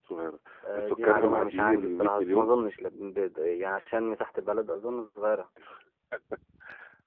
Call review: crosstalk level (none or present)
present